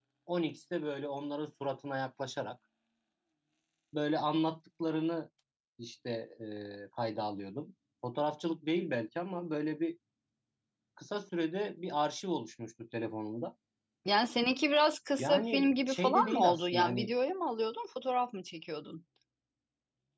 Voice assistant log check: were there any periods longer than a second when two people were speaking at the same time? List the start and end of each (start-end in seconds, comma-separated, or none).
15.2-17.1